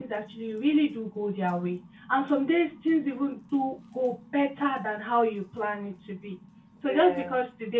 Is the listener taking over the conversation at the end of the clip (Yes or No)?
No